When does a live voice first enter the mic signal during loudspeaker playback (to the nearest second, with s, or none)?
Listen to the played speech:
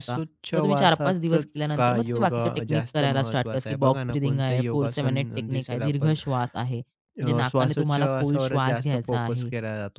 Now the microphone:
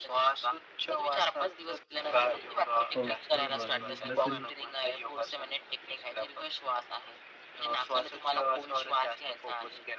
3 s